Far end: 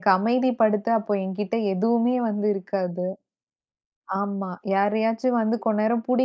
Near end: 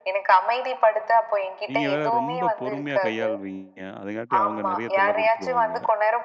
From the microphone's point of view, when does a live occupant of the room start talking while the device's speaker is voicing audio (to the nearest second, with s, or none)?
2 s